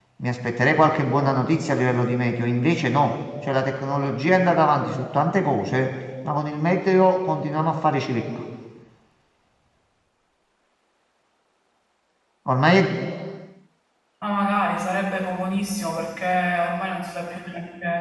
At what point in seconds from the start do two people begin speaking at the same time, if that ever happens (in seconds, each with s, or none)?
none